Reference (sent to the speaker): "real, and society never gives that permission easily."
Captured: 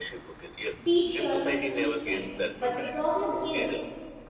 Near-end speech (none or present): present